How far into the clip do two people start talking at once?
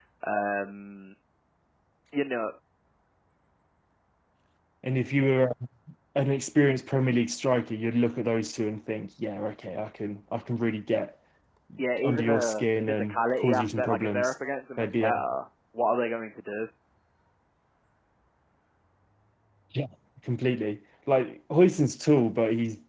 12 s

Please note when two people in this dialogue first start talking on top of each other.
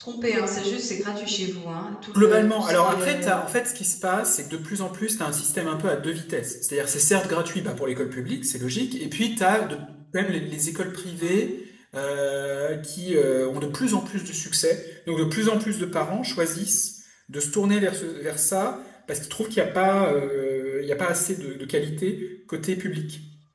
2 s

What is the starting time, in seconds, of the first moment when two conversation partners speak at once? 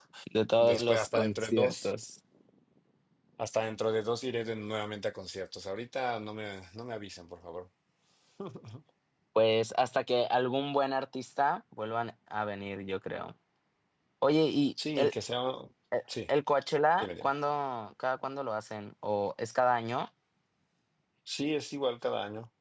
1 s

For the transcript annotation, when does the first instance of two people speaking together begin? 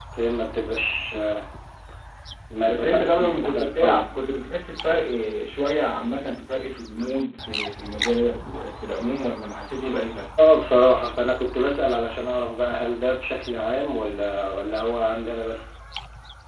3 s

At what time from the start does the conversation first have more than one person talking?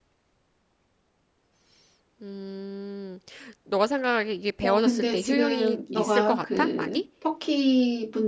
5 s

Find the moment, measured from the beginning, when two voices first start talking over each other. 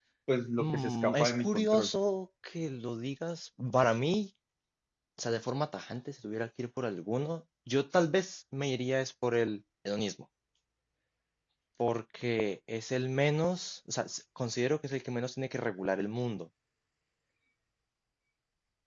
1 s

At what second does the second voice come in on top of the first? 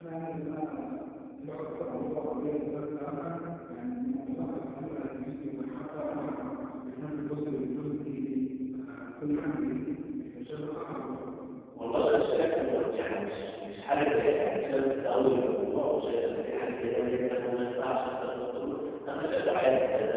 none

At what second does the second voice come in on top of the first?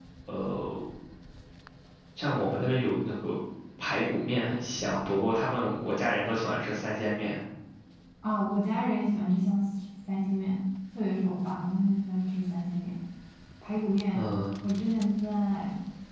none

